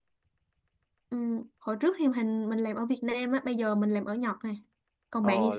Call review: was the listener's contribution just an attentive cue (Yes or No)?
No